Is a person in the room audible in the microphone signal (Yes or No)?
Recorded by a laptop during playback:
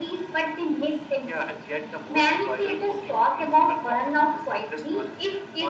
No